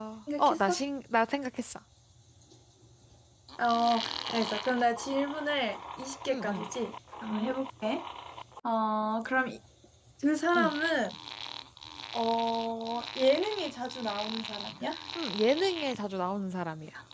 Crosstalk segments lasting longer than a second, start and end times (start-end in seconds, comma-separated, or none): none